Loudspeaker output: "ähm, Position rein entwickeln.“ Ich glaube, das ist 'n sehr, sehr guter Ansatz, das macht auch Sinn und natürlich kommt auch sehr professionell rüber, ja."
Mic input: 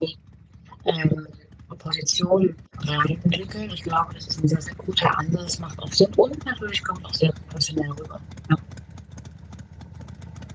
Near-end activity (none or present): none